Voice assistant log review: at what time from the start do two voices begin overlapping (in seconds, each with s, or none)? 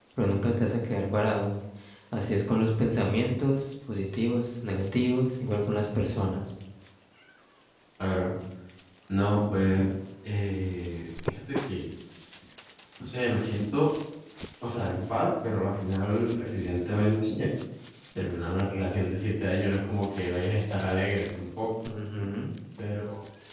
none